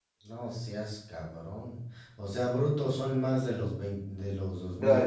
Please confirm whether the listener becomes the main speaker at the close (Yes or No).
Yes